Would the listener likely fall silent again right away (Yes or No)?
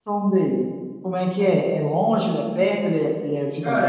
No